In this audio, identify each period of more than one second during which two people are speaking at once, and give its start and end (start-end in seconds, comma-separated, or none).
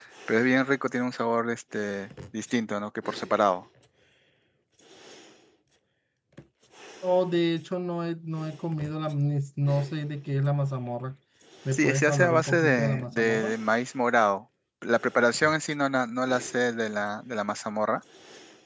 11.7-13.5